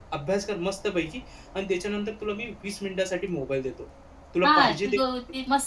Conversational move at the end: taking over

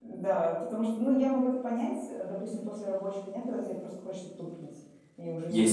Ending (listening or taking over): taking over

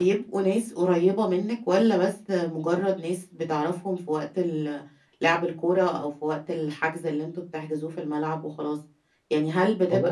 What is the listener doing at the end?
listening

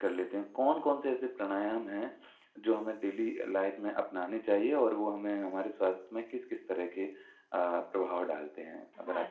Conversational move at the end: taking over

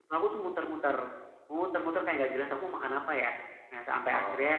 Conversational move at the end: listening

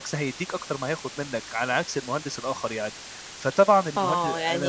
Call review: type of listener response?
taking over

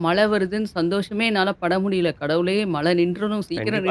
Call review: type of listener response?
taking over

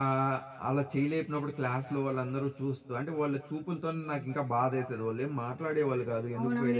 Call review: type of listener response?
taking over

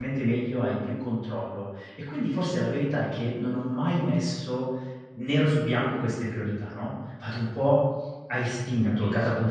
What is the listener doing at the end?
listening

